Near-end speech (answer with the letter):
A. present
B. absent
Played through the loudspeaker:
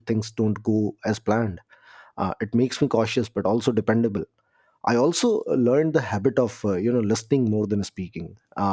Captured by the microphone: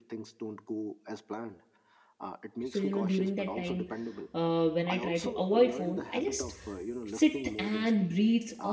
A